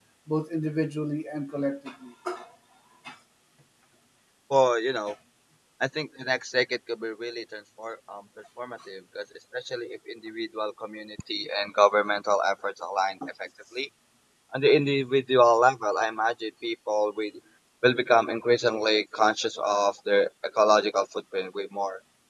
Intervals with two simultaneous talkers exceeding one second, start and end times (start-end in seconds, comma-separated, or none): none